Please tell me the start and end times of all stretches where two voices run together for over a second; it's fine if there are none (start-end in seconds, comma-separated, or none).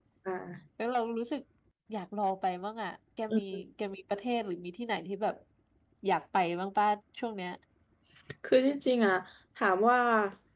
none